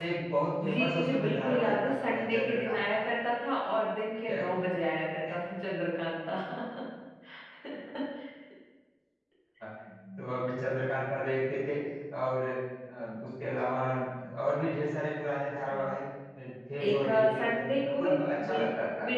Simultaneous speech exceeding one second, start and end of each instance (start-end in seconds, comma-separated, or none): 0.7-3.0, 16.8-18.6